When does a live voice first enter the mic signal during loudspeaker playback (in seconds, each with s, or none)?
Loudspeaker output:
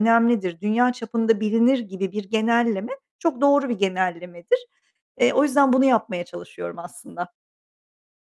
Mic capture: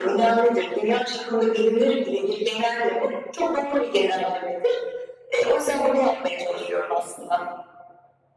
none